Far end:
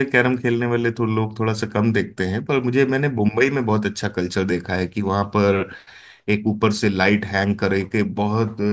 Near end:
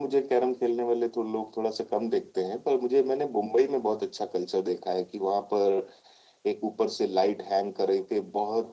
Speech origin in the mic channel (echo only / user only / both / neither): echo only